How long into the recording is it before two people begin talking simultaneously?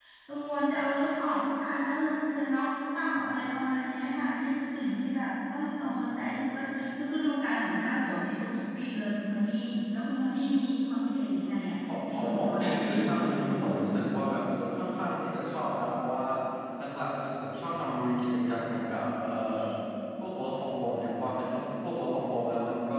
11.9 s

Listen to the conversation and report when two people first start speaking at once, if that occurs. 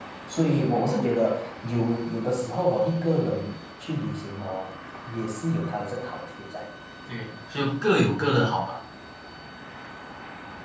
none

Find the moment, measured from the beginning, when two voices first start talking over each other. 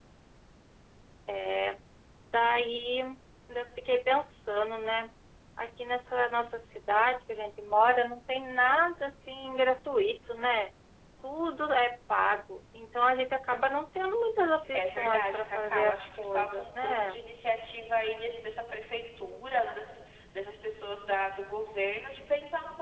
14.7 s

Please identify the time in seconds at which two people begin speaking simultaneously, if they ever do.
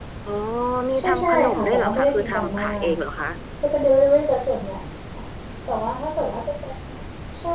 1.0 s

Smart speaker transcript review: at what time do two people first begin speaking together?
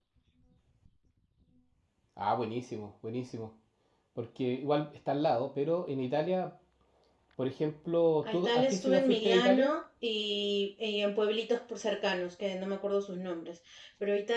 8.2 s

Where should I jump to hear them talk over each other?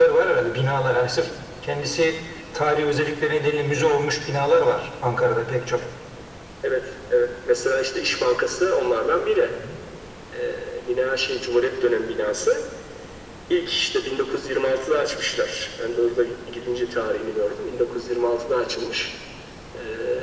none

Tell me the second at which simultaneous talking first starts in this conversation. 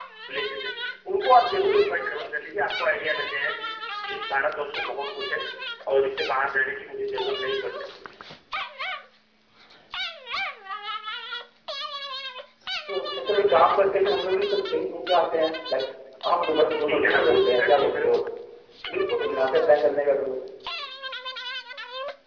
16.9 s

